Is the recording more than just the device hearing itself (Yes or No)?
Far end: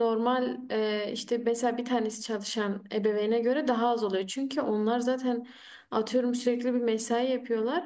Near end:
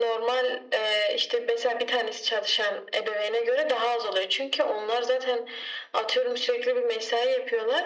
No